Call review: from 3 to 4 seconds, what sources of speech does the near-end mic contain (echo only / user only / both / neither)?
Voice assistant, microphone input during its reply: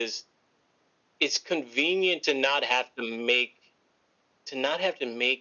echo only